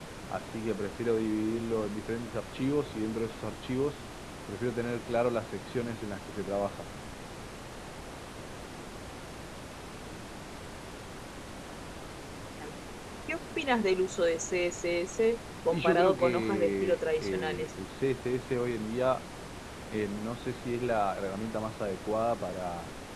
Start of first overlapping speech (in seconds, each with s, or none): 15.7 s